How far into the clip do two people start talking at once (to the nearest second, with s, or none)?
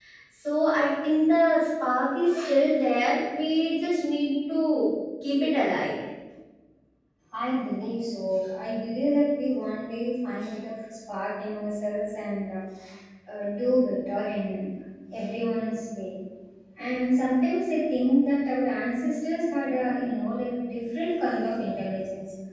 none